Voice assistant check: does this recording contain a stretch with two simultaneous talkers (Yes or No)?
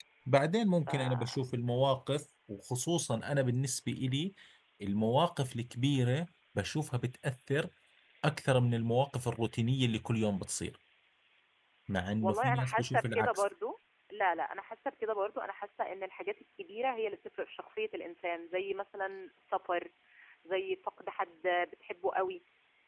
Yes